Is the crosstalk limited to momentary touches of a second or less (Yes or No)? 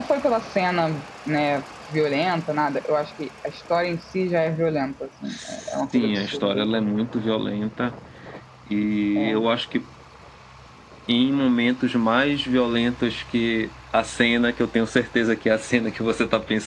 No